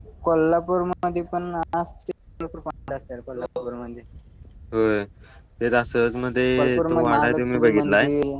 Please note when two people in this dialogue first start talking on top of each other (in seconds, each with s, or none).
6.6 s